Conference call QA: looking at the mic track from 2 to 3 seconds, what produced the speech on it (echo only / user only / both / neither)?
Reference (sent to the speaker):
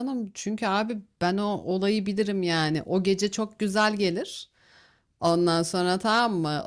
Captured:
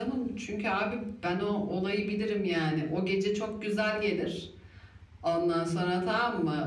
echo only